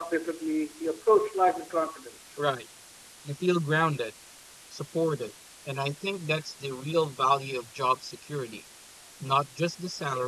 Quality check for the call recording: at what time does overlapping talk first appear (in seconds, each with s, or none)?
none